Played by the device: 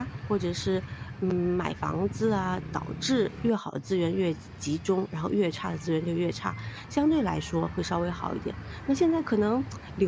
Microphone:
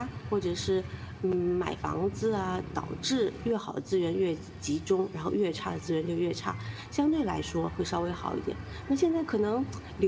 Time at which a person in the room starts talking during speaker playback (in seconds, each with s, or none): none